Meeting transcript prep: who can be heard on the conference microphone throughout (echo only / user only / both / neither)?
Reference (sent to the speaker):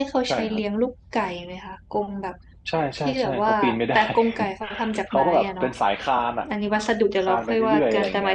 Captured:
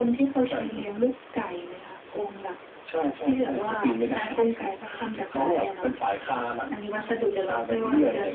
echo only